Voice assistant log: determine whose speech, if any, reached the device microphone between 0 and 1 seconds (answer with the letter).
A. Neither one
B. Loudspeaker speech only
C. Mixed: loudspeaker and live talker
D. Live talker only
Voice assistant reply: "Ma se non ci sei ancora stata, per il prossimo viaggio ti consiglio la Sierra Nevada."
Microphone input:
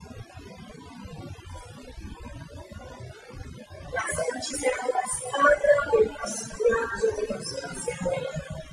A